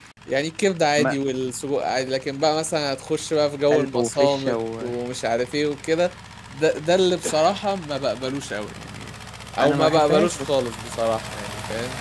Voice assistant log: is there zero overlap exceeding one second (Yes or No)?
No